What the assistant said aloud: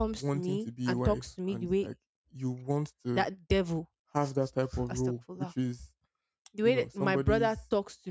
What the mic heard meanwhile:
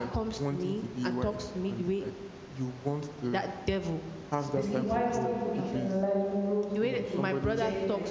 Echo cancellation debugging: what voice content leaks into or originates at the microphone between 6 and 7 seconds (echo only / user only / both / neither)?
both